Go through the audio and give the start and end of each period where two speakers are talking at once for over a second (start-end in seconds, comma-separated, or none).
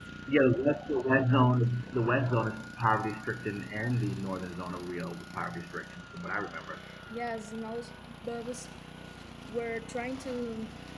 none